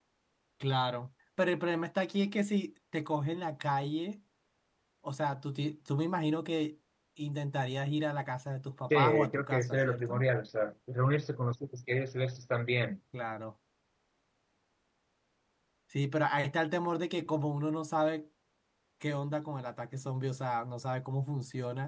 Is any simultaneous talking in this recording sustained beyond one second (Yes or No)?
Yes